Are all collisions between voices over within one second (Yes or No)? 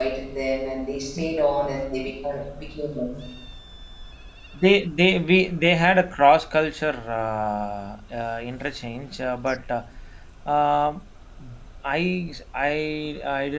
Yes